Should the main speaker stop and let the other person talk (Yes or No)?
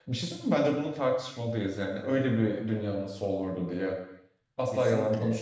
No